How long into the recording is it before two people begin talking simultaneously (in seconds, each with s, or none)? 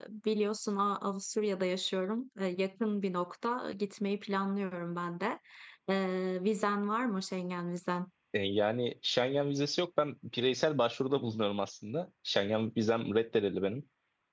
none